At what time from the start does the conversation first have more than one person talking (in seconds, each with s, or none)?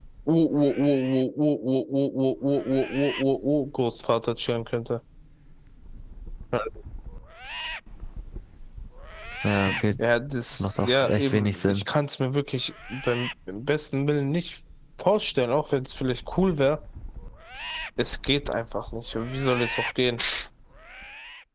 10.4 s